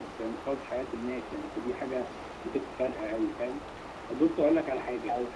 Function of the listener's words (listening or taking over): listening